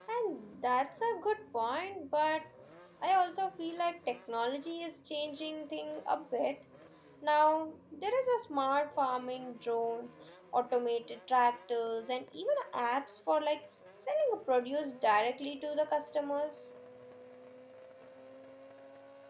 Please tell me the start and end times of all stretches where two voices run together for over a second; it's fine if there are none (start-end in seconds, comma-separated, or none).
none